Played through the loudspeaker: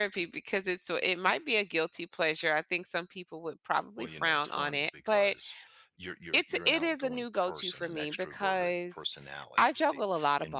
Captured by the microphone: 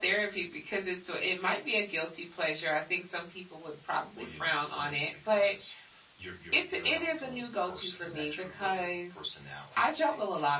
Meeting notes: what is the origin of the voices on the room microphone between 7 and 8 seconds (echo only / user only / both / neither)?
echo only